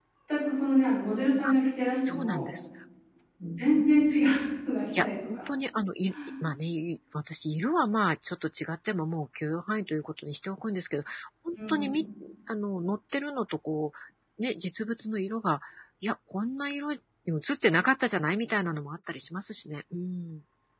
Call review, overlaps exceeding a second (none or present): none